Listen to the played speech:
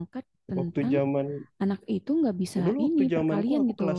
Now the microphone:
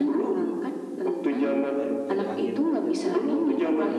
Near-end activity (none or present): present